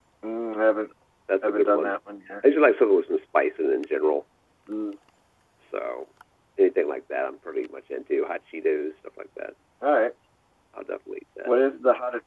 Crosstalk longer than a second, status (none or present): none